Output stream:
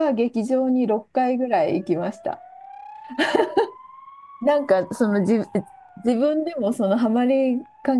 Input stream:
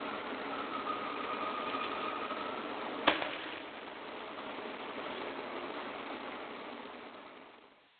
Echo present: No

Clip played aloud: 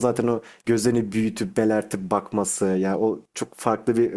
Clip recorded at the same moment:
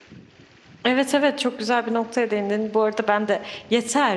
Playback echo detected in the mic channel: No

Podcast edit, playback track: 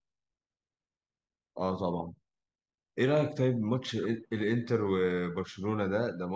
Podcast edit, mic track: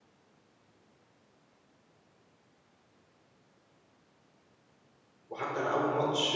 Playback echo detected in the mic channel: No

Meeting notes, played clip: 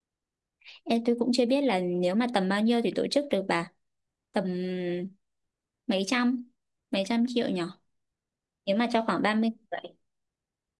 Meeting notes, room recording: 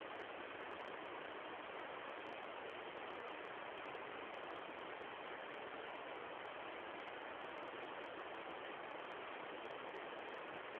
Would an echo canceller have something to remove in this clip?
No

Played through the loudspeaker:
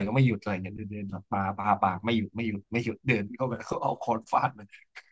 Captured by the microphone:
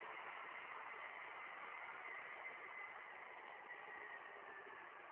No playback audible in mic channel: Yes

